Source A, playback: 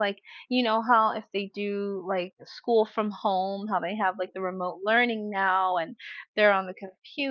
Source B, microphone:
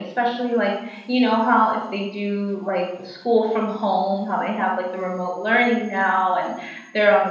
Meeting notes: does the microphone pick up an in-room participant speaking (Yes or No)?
No